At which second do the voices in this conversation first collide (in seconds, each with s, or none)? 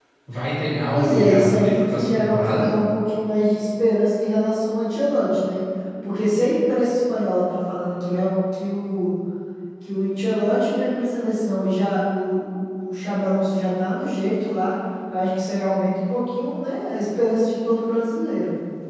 0.9 s